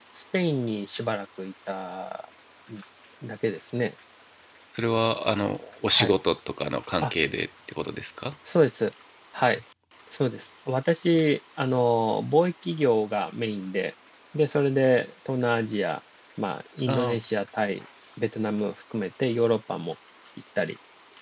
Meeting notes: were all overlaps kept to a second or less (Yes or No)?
Yes